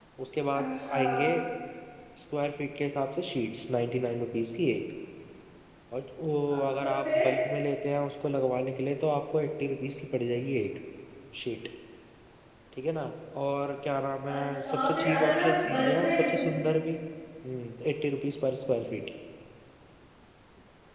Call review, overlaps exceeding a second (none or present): present